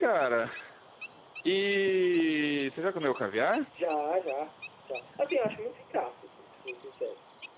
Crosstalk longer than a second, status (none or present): none